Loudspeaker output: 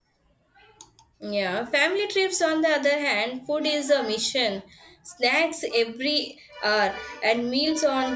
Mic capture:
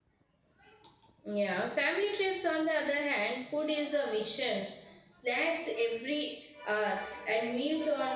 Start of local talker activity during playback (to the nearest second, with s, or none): none